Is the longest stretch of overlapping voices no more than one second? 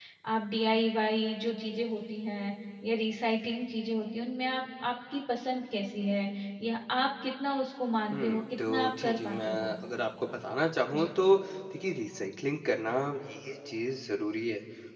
No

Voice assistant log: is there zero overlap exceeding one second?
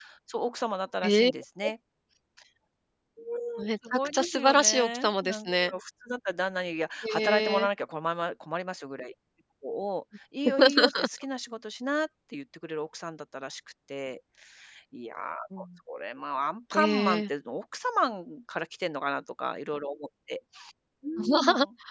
No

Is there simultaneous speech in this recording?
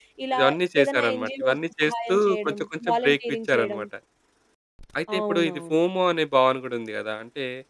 Yes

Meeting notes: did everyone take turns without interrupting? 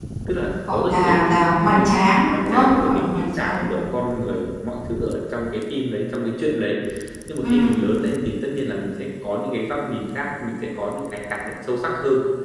No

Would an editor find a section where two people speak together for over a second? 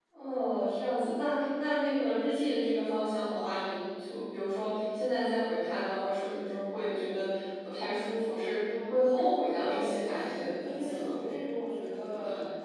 Yes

